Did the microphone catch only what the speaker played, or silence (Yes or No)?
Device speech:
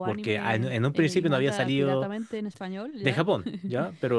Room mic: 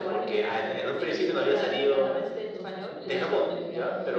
No